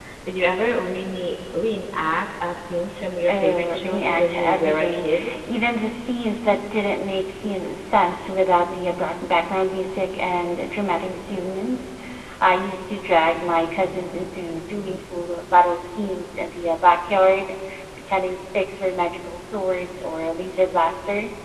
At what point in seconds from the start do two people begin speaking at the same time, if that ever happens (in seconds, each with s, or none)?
3.3 s